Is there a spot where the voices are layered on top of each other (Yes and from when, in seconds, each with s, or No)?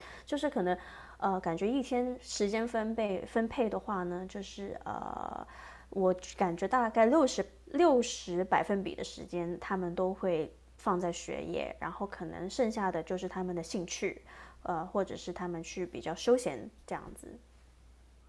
No